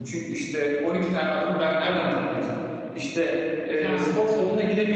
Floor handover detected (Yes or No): No